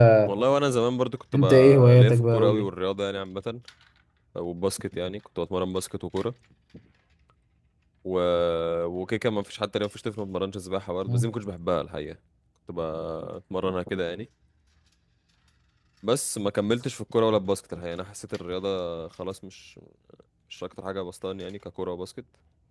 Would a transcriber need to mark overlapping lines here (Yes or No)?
Yes